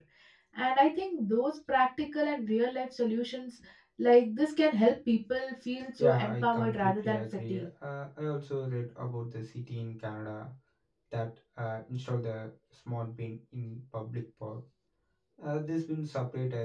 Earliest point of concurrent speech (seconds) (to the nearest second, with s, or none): 6 s